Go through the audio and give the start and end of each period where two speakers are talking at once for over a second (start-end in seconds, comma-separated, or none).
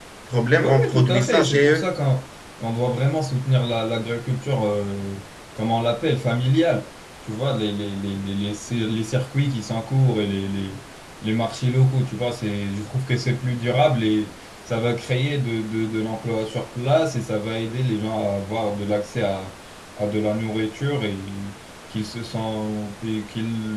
0.6-1.9